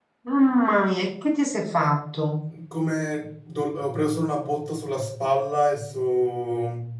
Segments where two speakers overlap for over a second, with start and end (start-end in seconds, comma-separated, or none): none